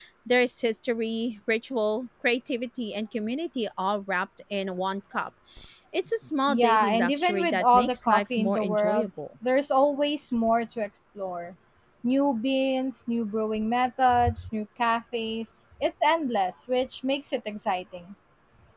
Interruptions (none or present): present